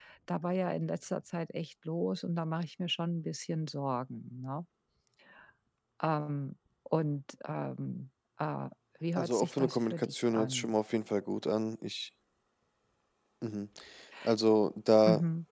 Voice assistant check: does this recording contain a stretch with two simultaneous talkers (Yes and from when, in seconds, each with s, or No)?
Yes, from 9.2 s